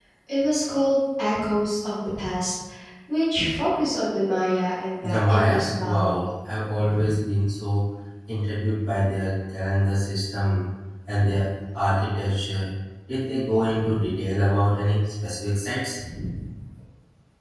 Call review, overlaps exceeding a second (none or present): present